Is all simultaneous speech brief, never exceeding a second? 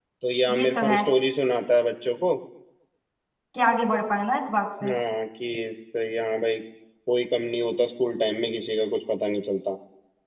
Yes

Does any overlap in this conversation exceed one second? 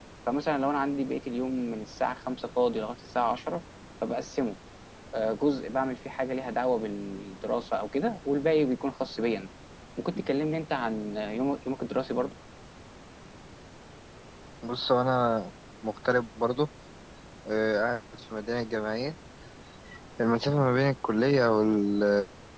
No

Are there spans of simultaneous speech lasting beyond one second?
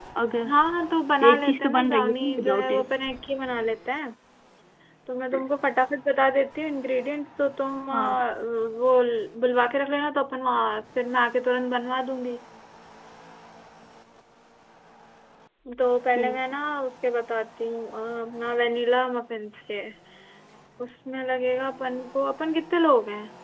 Yes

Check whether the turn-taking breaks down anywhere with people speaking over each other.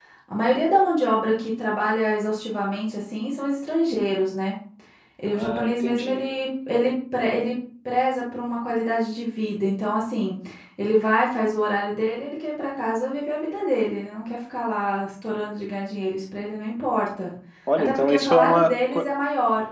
Yes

